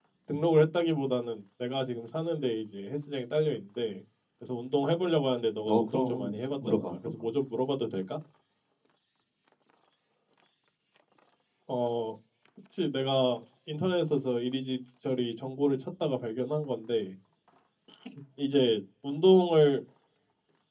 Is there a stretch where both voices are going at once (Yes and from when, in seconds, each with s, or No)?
Yes, from 5.7 s